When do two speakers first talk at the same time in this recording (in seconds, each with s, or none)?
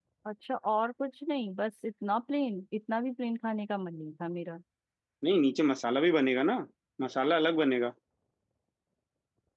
none